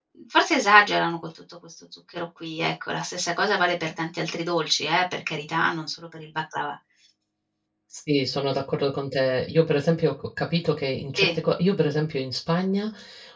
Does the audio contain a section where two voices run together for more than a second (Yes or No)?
No